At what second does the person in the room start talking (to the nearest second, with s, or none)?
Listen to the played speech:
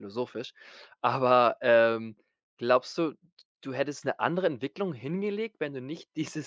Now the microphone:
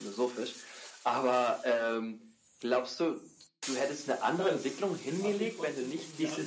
4 s